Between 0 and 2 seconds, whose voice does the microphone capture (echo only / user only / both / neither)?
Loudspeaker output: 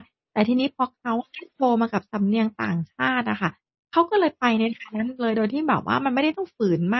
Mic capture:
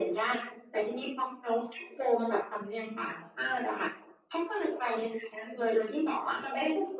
echo only